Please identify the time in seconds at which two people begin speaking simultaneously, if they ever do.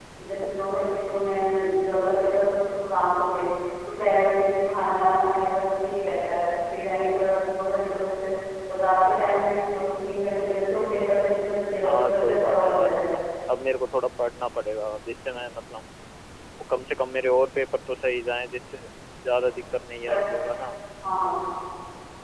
11.8 s

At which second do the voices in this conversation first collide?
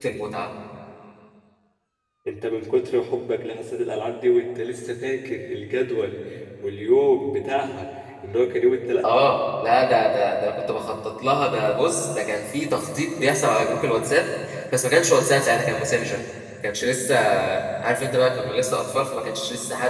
none

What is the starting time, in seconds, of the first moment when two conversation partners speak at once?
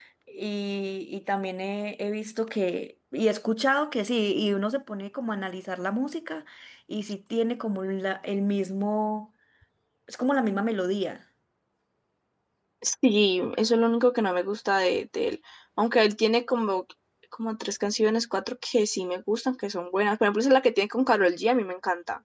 none

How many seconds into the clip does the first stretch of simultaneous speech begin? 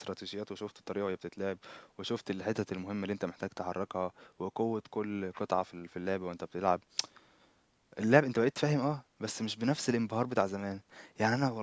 none

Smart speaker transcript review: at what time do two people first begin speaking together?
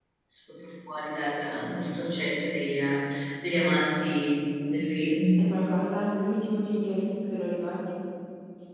none

